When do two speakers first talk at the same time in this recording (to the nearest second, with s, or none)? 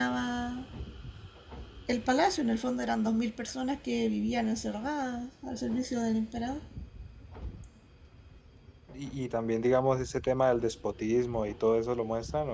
none